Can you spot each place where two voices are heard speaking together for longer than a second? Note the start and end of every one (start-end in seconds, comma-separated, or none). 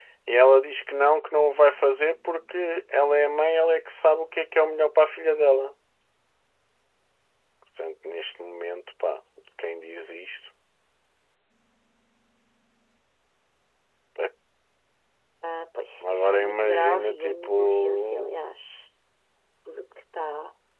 16.1-18.4